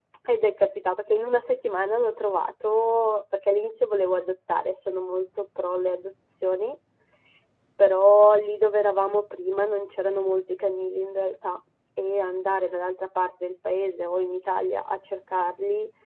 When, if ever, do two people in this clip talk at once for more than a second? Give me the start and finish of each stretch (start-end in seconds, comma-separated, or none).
none